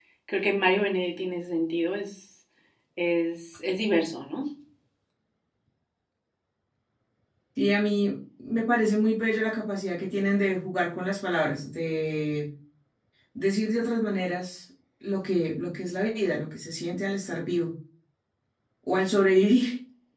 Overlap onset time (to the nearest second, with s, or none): none